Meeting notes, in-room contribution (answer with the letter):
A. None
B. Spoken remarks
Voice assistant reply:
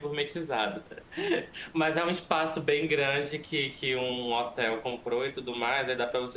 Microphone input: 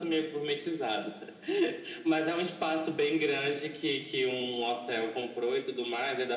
A